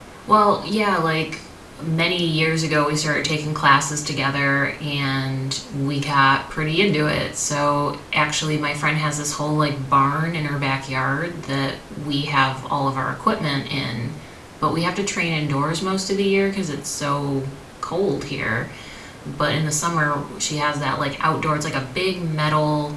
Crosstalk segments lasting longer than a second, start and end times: none

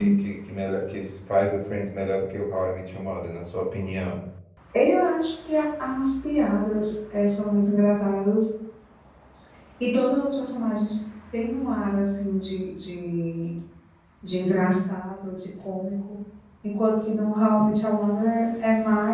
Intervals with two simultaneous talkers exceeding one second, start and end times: none

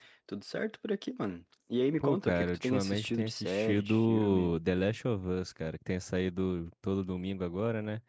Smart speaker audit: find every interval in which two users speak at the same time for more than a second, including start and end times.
2.0-4.5

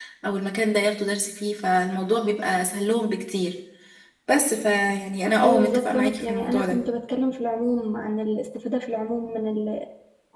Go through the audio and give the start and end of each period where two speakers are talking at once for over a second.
5.4-6.8

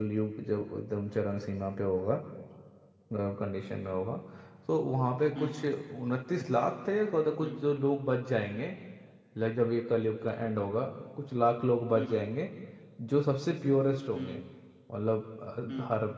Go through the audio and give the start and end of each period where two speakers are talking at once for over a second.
none

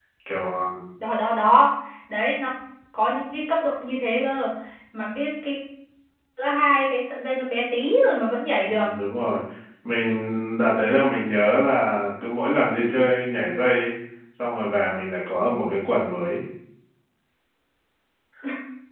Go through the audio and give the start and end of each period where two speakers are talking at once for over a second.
none

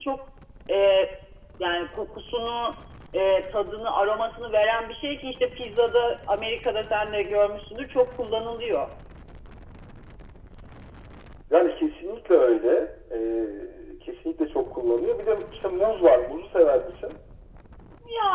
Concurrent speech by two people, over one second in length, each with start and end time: none

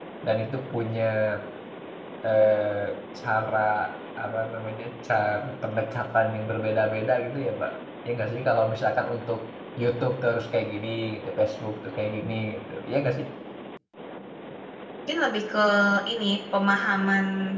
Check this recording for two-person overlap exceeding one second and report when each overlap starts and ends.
none

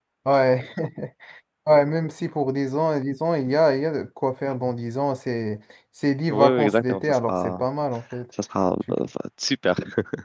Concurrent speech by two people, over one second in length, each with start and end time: 6.3-7.6

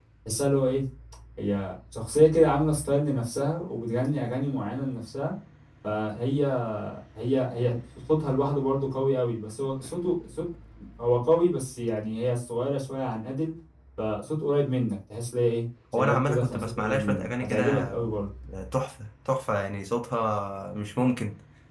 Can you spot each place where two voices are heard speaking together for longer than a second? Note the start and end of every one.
16.0-17.9

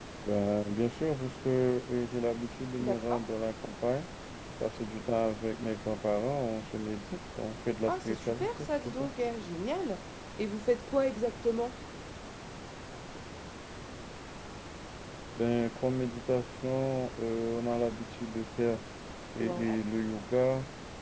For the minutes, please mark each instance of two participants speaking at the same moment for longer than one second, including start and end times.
7.9-9.1

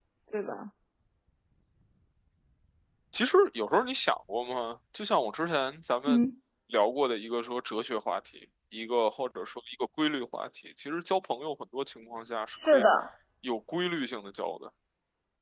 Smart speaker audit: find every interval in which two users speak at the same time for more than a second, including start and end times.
none

